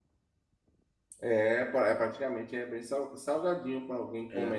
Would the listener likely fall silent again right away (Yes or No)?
Yes